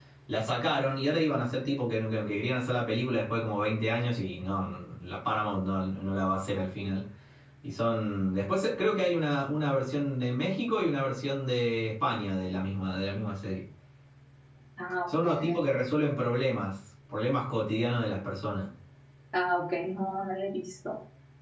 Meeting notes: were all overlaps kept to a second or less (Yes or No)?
Yes